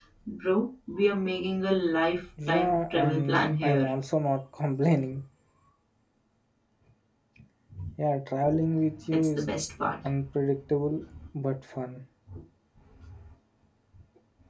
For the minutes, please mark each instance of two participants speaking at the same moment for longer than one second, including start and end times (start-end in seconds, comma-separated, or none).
2.5-3.9